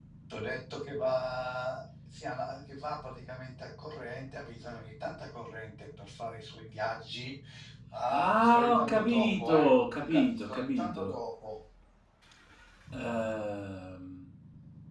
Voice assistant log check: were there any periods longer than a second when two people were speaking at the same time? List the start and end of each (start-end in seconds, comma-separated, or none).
8.1-11.1